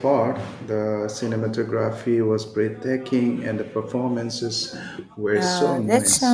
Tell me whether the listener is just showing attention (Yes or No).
No